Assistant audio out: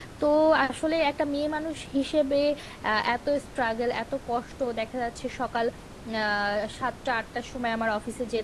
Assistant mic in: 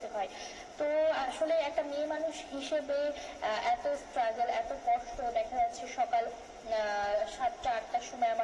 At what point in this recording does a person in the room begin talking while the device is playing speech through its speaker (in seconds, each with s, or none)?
none